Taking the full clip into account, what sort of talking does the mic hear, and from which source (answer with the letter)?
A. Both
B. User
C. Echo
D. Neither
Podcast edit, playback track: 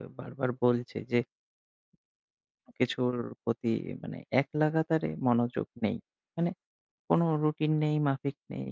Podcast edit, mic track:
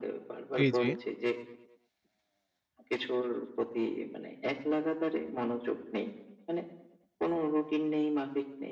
A